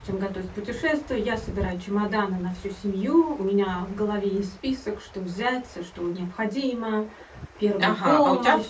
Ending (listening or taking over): taking over